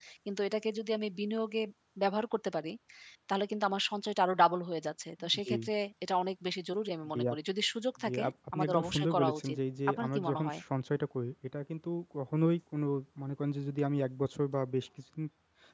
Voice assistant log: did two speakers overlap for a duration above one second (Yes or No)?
Yes